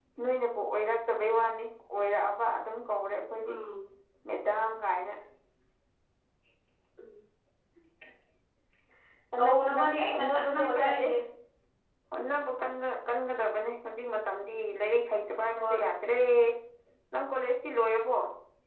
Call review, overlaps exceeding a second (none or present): present